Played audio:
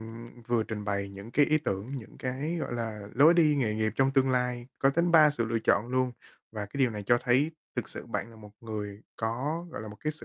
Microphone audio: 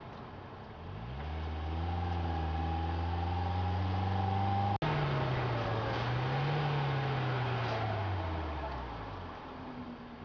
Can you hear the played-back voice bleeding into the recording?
No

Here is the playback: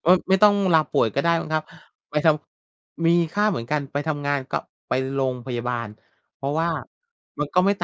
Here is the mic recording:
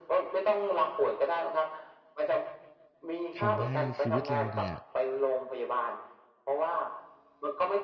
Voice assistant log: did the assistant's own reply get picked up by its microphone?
Yes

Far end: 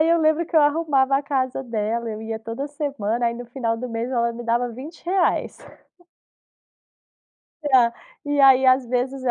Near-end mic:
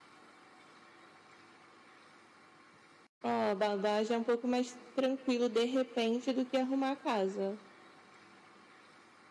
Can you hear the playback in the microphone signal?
No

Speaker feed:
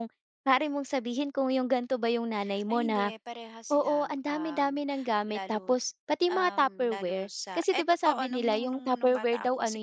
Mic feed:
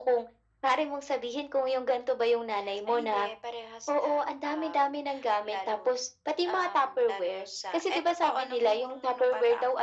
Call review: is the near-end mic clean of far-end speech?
No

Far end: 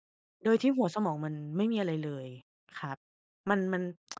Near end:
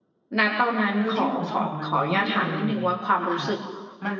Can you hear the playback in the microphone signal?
Yes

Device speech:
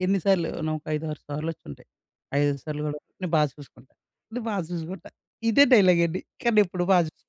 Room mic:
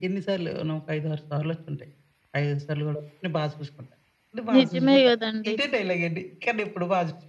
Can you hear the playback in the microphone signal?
Yes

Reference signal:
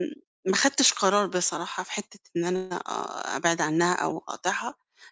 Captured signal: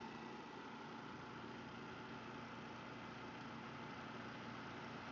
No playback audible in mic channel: Yes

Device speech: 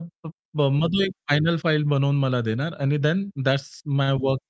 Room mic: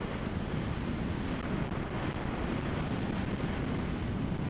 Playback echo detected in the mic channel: No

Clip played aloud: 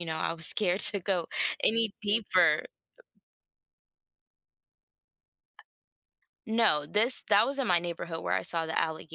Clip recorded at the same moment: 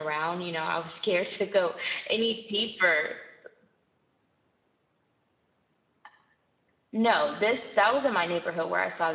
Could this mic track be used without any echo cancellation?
No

